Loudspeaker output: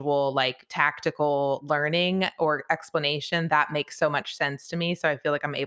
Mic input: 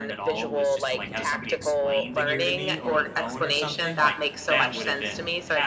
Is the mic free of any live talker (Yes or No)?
No